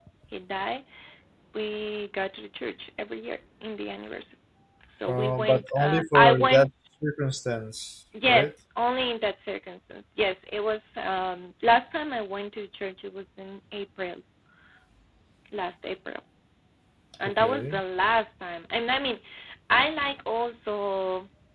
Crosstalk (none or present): present